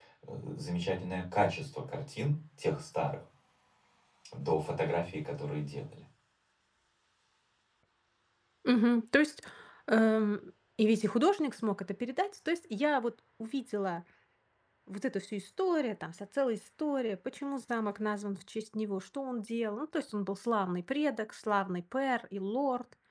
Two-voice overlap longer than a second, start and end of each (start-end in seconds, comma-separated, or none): none